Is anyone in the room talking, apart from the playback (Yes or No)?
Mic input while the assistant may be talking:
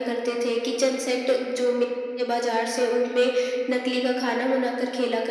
No